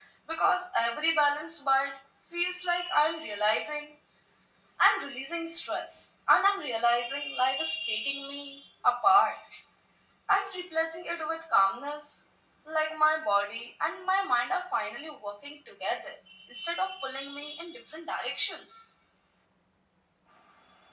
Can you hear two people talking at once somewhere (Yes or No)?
No